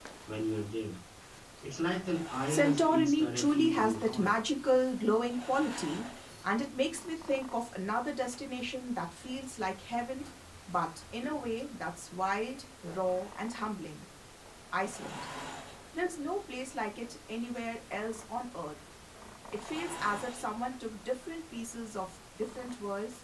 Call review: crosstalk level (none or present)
present